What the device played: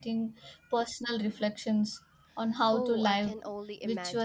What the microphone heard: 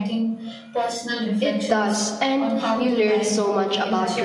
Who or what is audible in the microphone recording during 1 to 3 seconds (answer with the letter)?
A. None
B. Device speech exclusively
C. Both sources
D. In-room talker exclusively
C